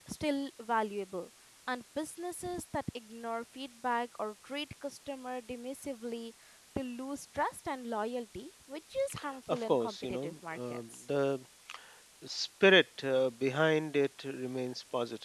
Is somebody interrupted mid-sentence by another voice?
Yes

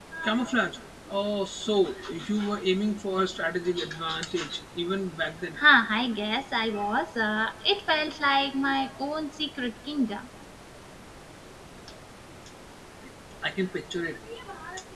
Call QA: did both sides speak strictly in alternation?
Yes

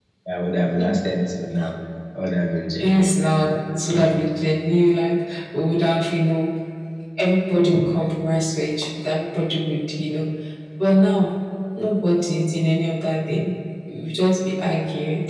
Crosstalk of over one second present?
No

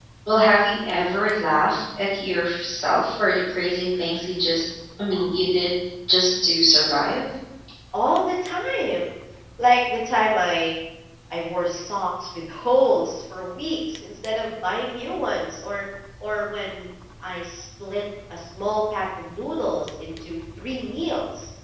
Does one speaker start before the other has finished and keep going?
No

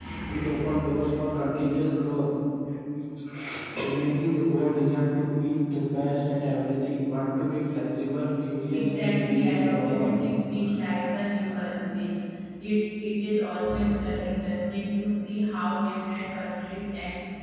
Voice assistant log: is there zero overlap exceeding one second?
No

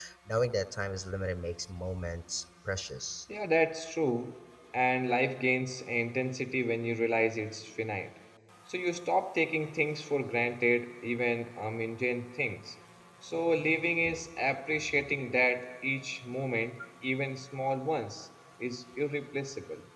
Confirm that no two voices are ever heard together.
Yes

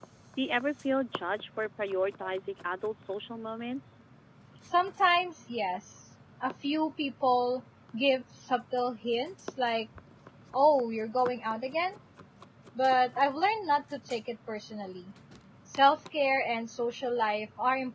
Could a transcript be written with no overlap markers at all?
Yes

